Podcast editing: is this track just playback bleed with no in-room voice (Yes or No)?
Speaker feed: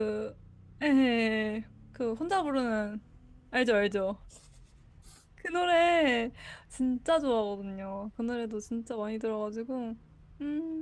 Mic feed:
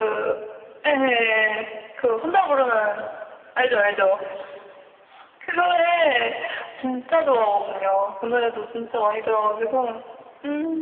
Yes